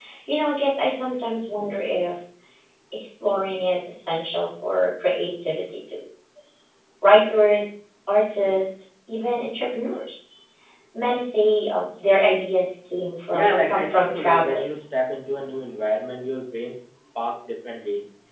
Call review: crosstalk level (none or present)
present